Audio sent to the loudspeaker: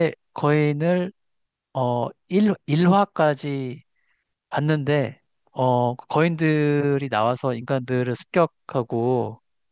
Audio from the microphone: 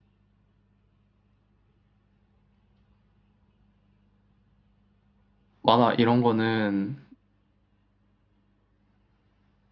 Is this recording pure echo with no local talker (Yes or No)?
No